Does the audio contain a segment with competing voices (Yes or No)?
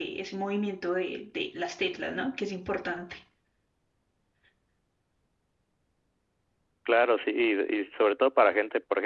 No